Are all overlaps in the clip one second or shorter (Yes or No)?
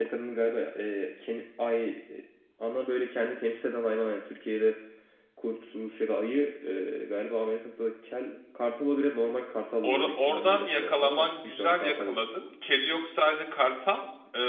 No